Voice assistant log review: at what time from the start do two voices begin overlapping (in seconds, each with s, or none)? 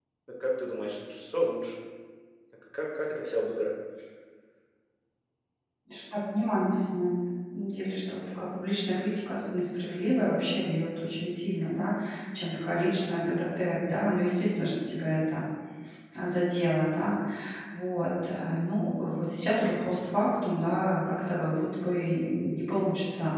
none